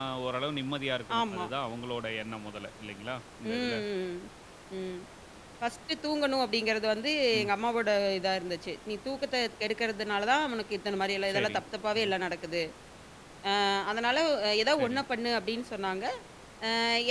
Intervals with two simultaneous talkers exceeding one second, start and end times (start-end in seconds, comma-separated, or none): none